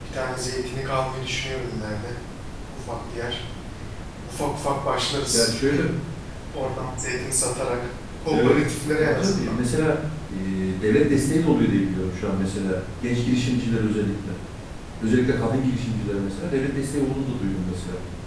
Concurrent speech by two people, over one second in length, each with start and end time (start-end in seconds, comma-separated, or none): 8.3-9.6